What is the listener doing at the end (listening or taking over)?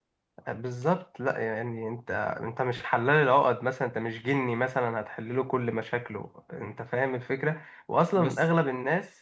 listening